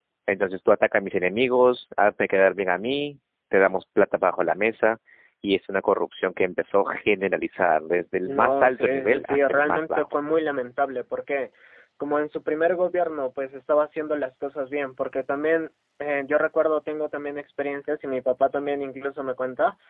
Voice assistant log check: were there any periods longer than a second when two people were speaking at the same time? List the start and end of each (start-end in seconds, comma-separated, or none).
8.2-10.2